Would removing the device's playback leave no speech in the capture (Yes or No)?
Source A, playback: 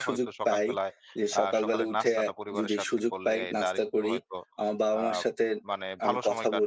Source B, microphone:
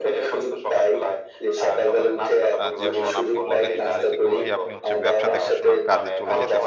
No